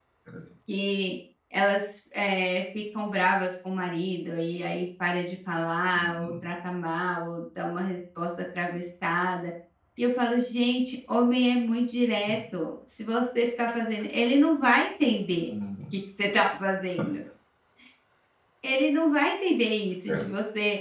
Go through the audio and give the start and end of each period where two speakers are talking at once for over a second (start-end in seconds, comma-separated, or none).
none